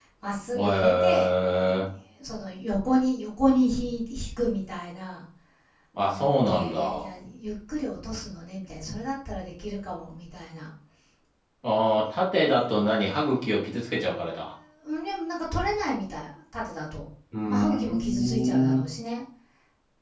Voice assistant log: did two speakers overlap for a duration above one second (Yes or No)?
Yes